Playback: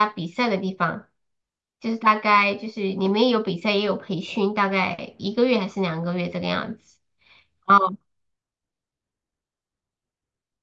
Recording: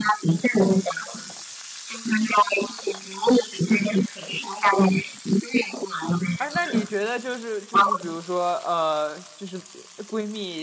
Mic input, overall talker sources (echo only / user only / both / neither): both